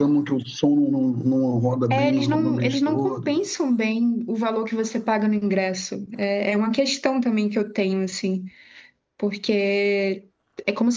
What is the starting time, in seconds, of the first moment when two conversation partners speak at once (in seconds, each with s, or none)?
1.9 s